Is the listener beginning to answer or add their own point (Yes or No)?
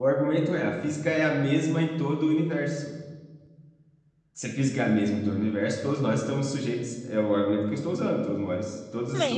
Yes